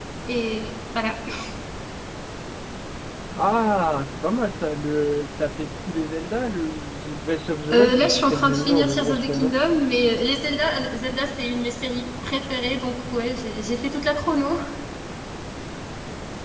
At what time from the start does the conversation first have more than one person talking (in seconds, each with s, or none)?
7.7 s